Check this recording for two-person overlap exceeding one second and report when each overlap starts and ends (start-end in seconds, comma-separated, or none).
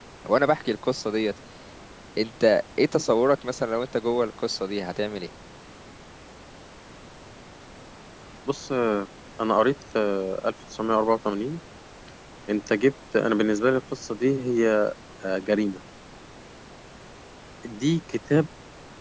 none